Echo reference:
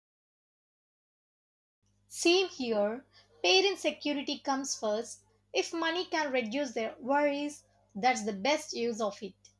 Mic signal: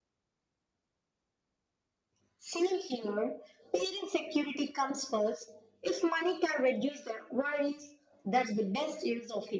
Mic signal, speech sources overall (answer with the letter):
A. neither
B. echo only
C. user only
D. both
B